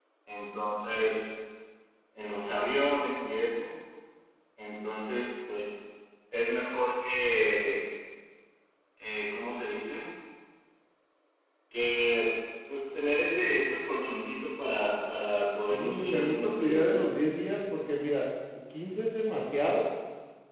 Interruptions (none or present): present